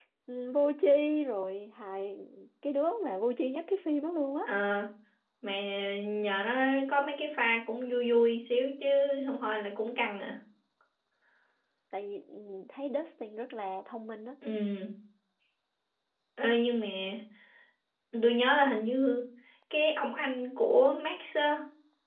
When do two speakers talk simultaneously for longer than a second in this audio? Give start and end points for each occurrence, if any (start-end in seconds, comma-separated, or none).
none